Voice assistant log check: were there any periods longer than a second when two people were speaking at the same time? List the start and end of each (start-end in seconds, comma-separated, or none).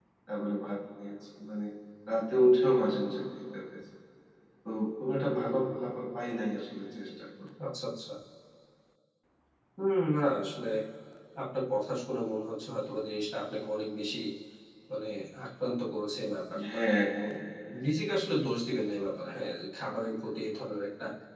none